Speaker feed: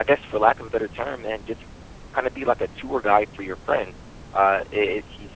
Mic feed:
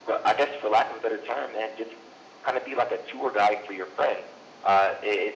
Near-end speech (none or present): none